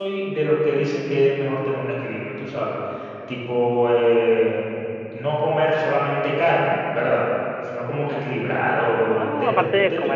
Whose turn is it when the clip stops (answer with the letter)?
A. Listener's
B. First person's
A